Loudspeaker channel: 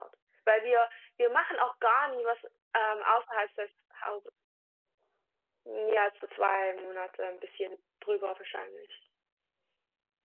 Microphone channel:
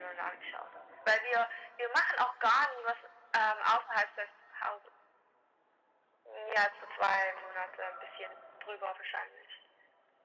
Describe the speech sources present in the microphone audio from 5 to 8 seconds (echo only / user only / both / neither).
echo only